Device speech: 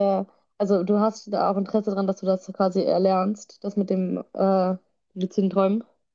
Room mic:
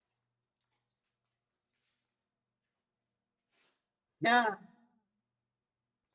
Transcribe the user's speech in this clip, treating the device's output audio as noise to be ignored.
Ja,

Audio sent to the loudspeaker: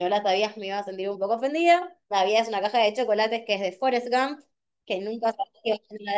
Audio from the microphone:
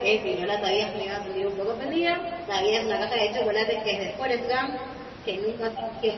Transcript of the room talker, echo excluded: none

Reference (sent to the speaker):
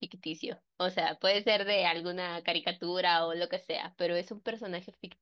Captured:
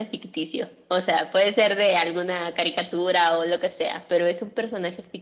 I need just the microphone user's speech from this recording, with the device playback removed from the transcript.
none

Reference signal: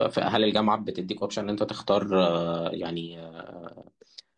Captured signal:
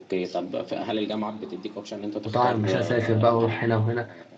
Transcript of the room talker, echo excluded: وطبعا مش هسافر بقى واروح هنا وهنا

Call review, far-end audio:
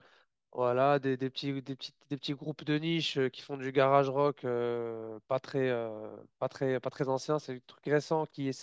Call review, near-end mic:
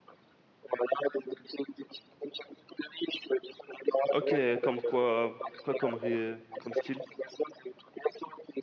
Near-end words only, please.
Ok, comme quoi, quoi comme, ré- comme style?

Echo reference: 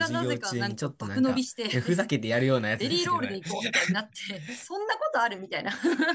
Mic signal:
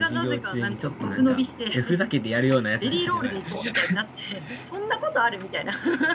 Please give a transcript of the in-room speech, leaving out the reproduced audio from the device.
none

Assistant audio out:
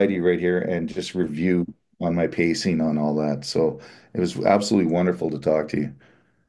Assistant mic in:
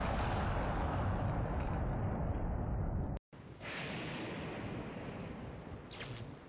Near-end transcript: none

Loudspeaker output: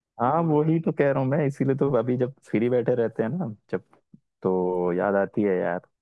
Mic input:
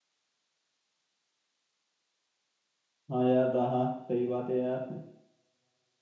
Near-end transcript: हाँ यार दा- हाँ सही बात है यार

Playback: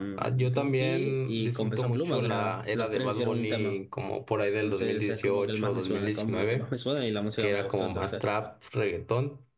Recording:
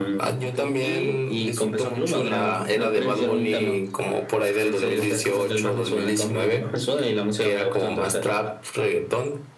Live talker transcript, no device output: none

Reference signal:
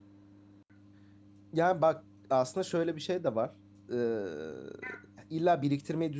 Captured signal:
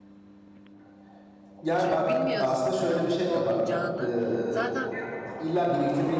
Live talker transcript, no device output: Çünkü bilmiyorsun ne olup olmayacağını. Zaten

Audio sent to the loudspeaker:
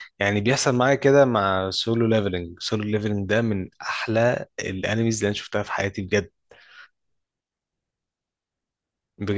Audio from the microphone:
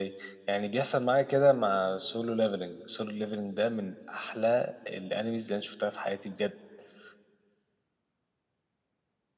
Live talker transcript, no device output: none

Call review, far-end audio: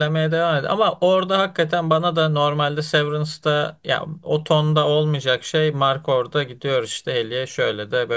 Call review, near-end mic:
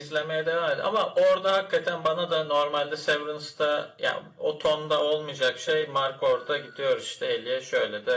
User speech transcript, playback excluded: none

